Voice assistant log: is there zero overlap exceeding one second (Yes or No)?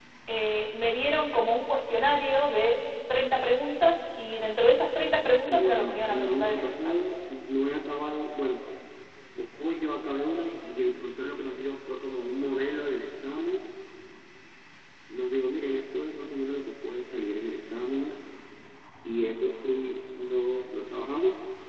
No